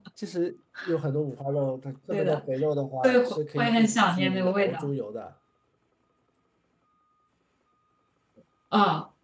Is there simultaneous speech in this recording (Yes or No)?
Yes